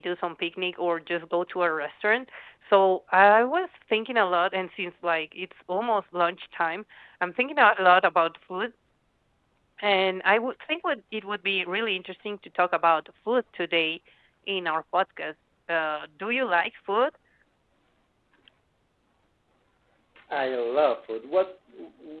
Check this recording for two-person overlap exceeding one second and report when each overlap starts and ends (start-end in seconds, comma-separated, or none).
none